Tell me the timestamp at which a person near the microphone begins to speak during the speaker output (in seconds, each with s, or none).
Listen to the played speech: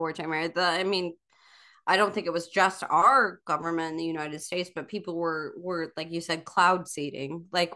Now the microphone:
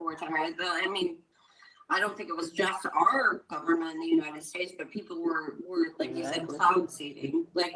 6.0 s